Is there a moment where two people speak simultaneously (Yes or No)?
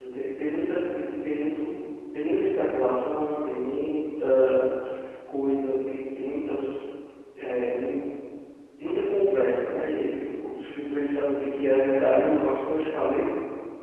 No